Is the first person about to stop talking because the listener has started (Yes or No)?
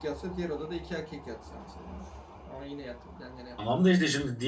Yes